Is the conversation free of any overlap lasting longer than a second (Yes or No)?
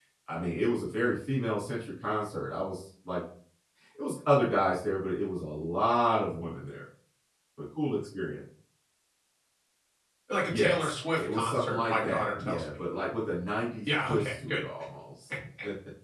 No